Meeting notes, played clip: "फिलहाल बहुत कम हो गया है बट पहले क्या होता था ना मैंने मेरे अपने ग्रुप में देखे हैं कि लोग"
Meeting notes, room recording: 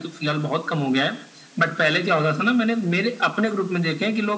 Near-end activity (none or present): none